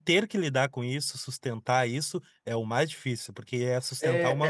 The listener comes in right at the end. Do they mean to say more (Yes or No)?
Yes